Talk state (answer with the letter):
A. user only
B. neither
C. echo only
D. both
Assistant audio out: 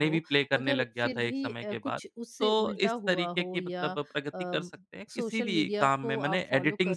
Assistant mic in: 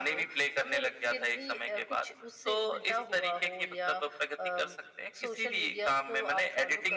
C